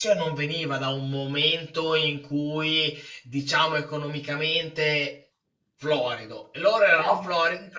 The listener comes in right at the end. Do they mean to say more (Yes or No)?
No